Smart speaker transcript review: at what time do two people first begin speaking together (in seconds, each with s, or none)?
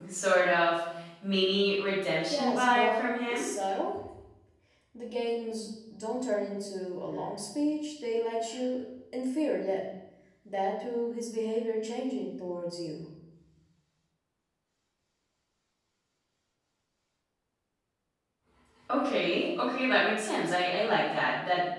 2.3 s